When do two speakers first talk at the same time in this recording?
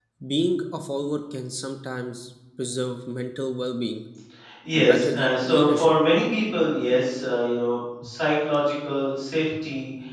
5 s

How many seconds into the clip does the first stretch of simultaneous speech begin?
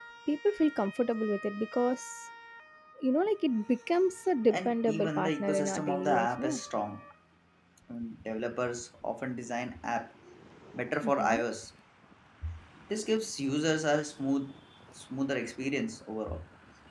5 s

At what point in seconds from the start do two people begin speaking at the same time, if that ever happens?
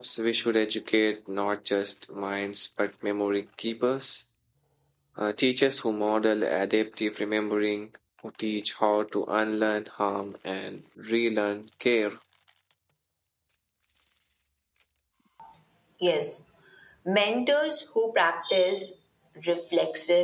none

